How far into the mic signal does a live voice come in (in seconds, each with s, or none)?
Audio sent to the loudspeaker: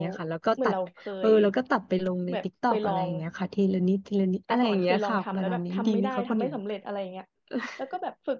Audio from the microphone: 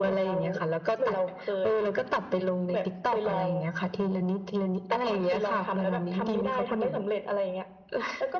none